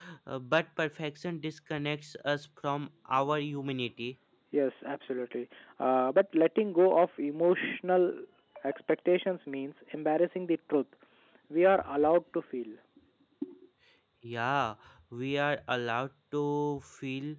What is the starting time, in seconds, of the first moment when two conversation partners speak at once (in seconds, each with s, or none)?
none